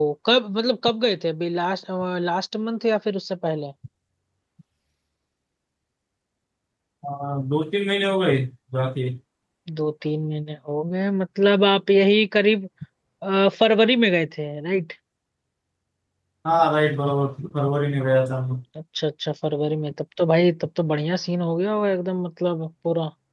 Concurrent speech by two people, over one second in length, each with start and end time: none

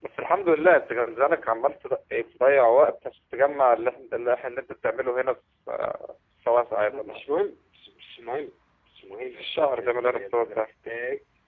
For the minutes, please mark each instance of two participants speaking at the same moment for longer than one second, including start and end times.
9.3-10.6

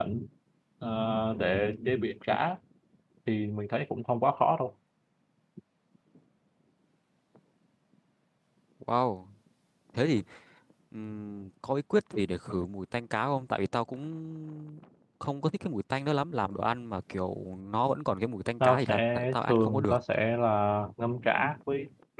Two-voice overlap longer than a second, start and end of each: 18.6-20.0

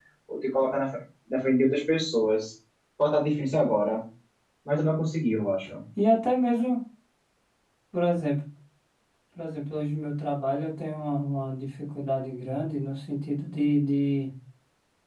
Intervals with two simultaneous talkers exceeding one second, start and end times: none

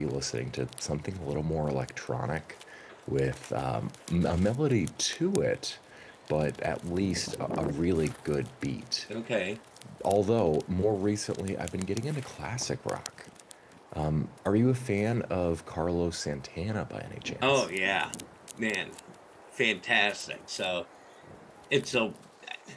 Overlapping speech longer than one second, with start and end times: none

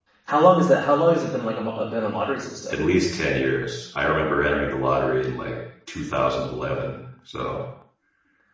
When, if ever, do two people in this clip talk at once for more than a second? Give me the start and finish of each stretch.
none

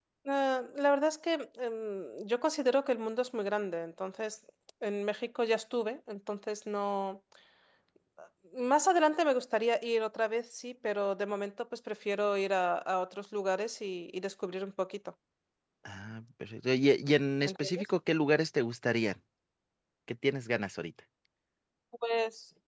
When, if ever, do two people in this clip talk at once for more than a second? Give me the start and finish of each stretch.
none

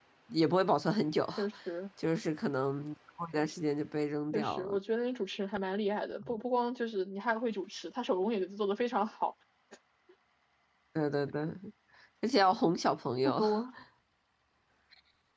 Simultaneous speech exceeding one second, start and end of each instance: none

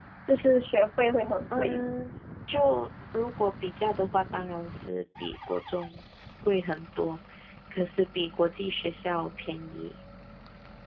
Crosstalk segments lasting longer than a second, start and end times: none

